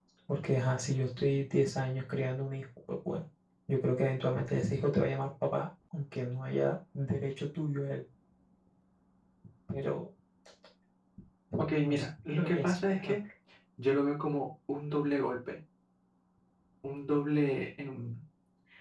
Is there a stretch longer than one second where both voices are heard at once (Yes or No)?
Yes